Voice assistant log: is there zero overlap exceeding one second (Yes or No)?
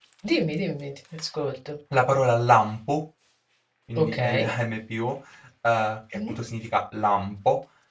Yes